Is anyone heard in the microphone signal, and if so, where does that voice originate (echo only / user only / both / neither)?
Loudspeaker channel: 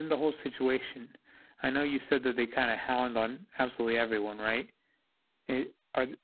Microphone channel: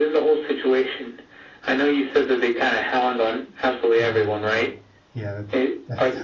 both